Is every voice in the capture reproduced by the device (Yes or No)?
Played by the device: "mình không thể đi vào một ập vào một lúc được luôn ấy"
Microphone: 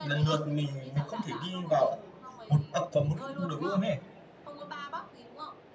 No